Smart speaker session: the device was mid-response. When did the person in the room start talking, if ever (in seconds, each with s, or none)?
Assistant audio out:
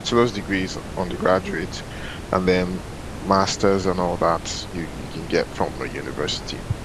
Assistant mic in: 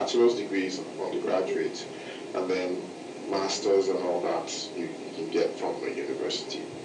none